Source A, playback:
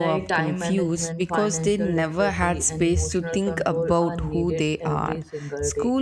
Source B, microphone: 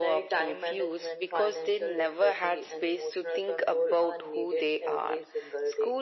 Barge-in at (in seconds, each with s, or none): none